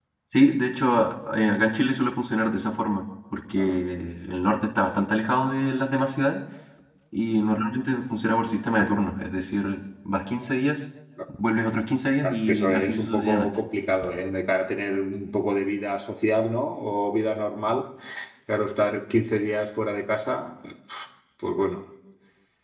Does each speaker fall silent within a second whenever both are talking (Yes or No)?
No